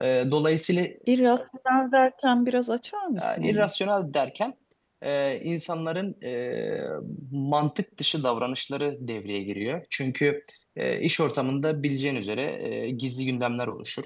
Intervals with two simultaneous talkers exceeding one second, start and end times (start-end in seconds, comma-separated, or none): none